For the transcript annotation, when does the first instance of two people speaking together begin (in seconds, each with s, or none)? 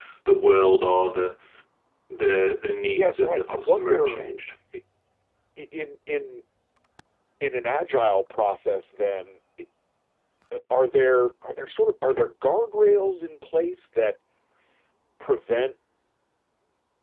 2.9 s